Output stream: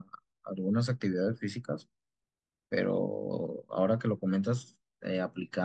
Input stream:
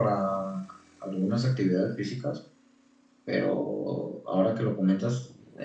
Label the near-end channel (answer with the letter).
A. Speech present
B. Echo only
B